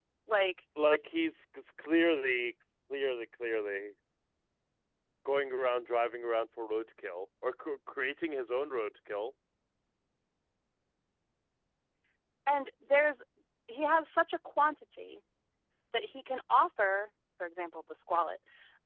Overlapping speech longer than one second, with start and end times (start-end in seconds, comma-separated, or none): none